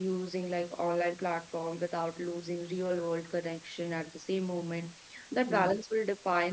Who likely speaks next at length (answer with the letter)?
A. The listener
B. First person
B